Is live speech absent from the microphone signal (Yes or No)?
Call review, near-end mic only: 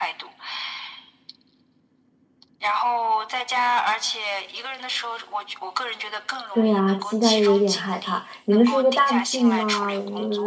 No